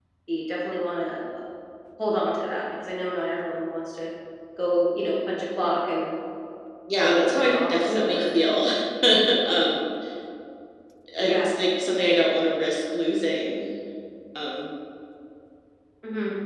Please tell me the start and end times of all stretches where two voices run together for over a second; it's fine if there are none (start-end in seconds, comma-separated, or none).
6.9-8.3